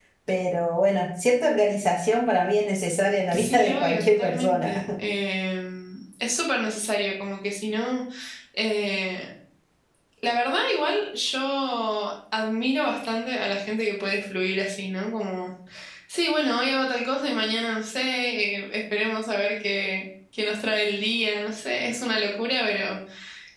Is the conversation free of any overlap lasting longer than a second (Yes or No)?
No